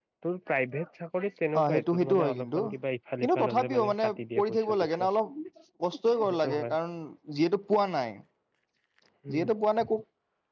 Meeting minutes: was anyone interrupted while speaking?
Yes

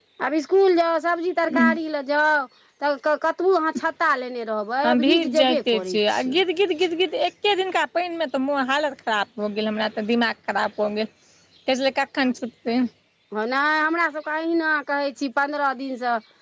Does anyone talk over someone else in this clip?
Yes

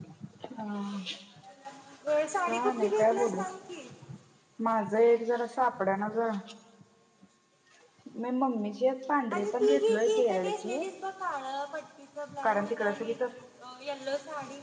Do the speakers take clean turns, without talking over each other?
No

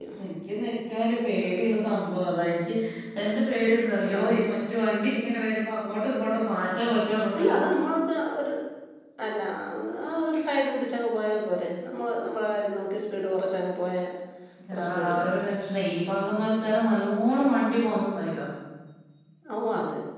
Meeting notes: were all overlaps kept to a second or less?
Yes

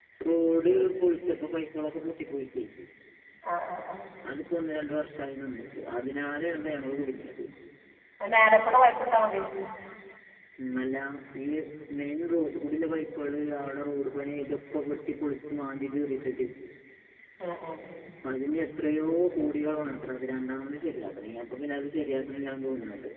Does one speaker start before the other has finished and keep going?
No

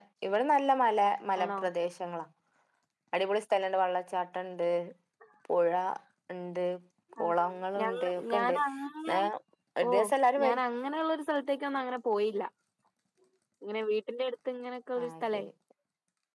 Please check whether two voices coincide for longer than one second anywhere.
Yes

